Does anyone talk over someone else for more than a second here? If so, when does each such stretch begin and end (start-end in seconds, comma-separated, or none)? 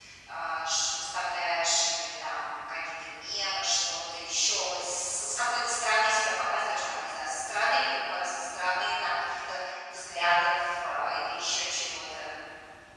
none